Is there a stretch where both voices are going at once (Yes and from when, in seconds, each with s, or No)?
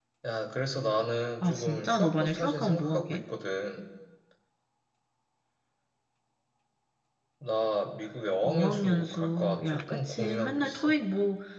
Yes, from 1.4 s